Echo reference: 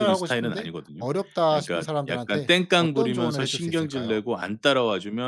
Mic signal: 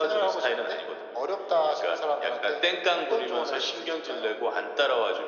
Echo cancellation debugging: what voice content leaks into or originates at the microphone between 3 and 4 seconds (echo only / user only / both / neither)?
echo only